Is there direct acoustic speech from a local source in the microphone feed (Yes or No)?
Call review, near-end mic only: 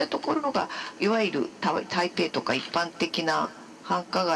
No